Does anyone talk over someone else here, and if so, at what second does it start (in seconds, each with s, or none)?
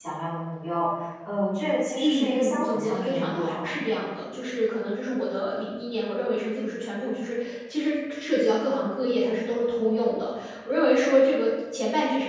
2.0 s